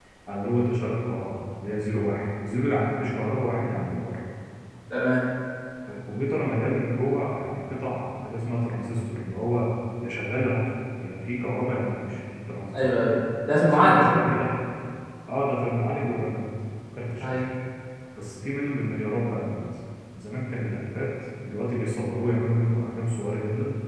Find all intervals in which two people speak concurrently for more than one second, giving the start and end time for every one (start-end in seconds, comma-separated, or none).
none